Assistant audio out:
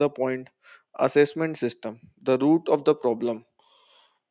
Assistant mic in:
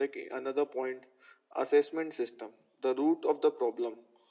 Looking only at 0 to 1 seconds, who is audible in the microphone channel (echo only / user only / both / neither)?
echo only